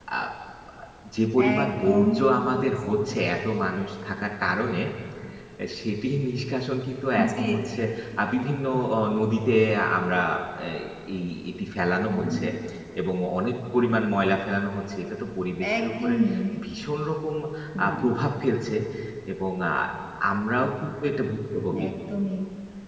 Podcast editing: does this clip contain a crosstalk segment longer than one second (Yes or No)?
Yes